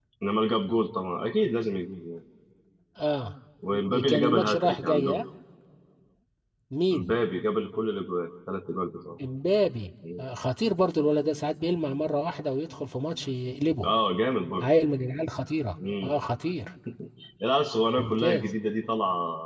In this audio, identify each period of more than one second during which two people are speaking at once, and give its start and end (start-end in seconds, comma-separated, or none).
3.9-5.2